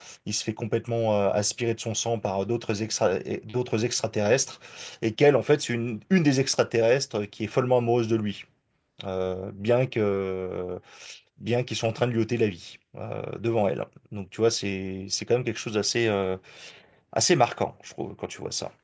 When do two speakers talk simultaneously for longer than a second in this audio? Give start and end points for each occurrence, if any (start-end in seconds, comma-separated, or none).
none